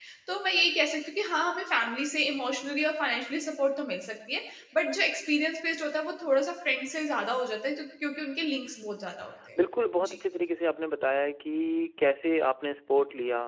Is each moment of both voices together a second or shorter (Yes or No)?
Yes